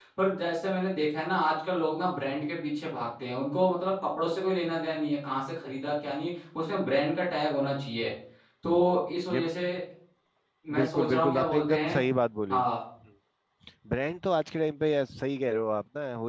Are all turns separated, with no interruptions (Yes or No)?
No